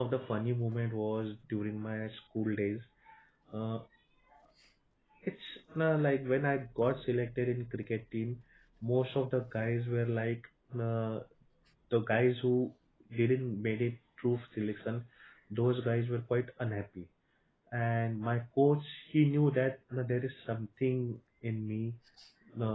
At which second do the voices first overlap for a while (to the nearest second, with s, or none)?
none